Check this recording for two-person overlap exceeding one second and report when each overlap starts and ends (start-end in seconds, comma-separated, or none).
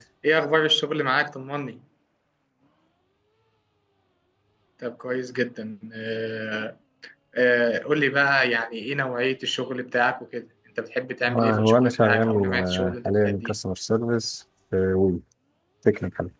11.4-13.5